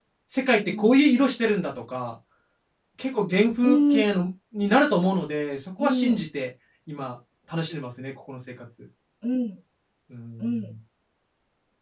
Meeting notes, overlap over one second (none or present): none